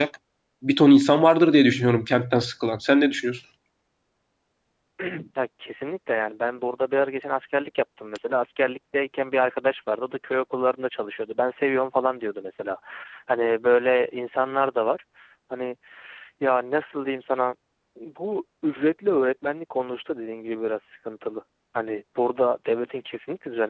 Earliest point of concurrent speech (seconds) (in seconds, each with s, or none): none